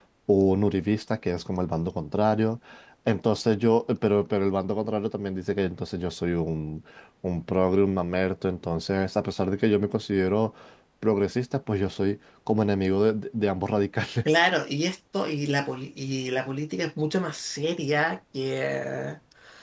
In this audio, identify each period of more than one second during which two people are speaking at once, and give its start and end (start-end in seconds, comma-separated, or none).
none